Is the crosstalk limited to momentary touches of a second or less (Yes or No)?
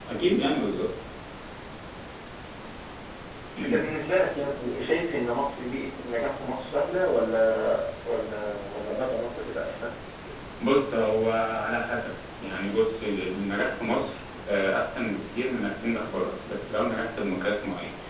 Yes